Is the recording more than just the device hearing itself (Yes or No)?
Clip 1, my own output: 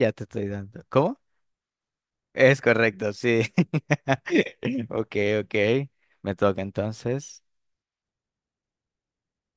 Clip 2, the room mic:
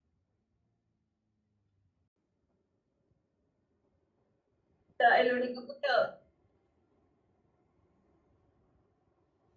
Yes